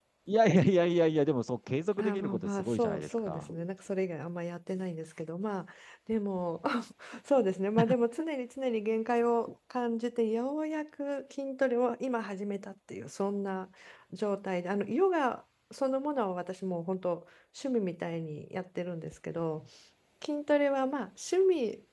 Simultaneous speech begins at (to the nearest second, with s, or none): 2 s